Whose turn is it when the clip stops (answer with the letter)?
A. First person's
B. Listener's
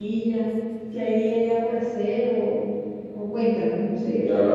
B